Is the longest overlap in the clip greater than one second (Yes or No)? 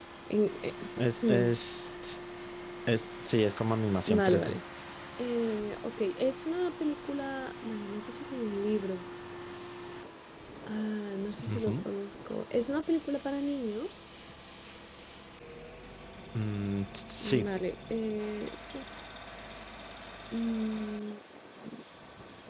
No